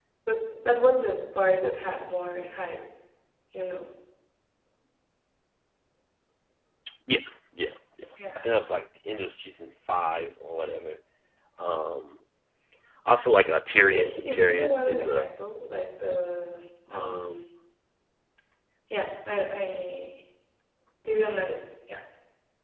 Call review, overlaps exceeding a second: present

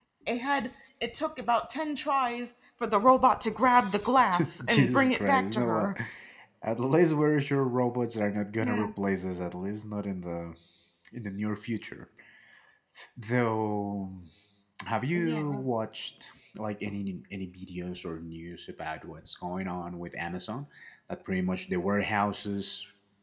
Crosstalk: present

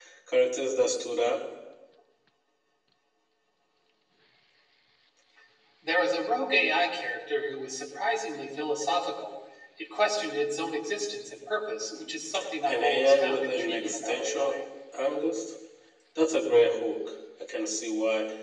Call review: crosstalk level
present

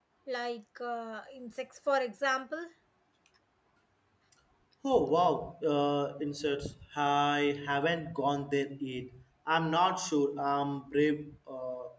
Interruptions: none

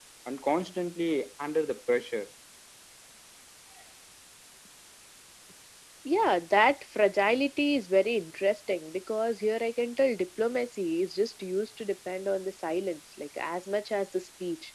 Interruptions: none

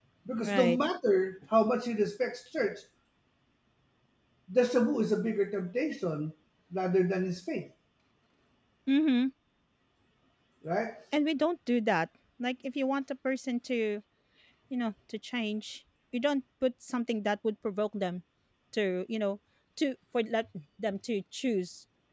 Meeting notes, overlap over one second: none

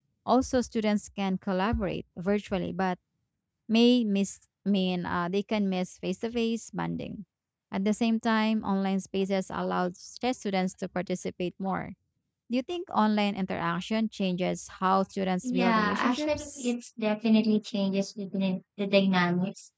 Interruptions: present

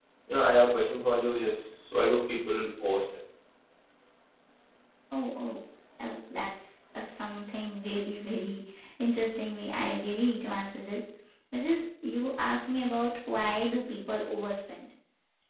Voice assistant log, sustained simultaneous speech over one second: none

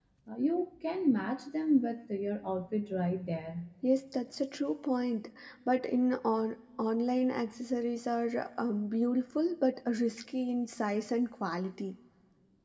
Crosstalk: none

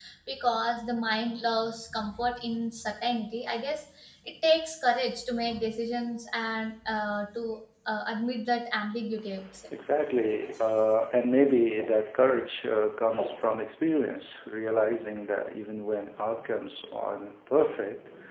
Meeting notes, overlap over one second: none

